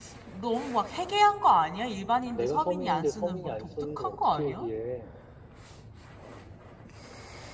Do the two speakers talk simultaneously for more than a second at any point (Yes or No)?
Yes